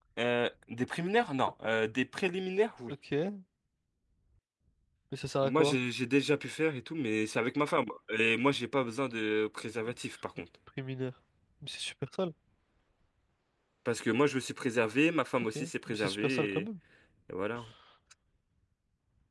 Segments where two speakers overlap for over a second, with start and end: 15.4-16.6

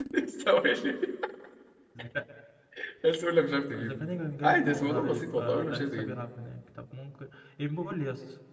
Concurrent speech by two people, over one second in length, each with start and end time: 4.4-6.1

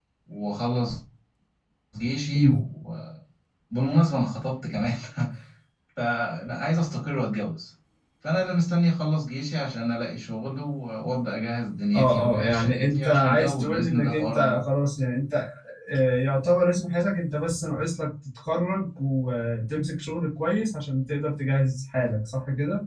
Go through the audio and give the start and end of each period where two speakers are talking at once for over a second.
11.9-14.6

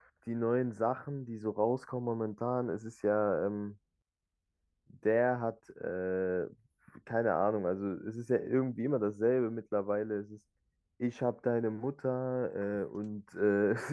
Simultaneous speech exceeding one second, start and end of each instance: none

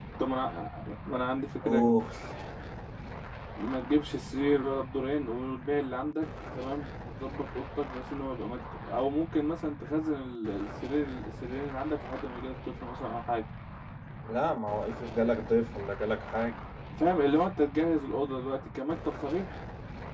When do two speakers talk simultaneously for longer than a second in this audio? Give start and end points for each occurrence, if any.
none

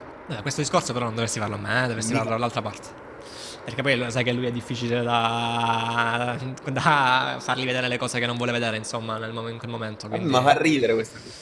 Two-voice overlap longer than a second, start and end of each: none

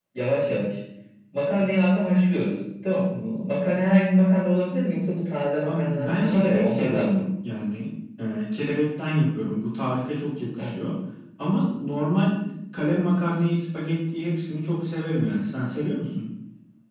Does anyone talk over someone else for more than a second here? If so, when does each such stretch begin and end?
5.6-7.2

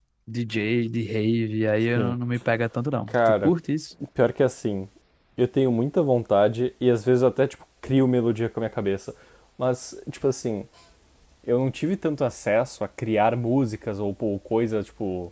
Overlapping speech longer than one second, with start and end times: none

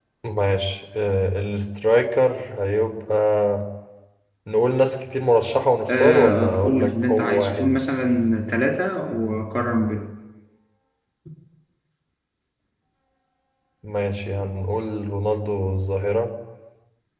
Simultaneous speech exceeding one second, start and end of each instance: 6.0-7.8

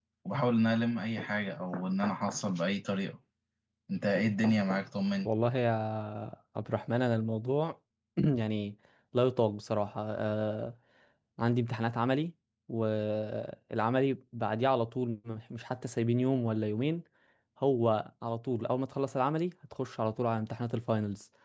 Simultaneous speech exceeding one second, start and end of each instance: none

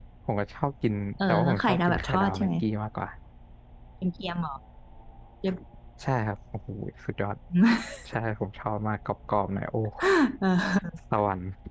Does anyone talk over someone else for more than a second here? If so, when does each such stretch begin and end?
1.3-2.5

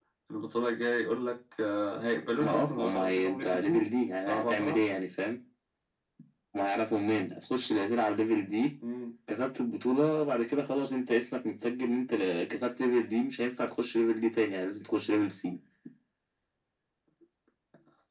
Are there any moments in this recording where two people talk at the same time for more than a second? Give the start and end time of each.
2.4-3.8

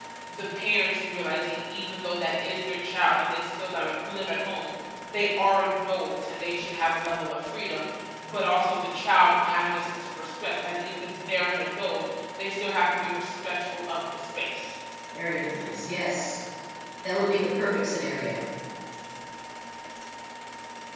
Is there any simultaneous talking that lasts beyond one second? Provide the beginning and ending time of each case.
none

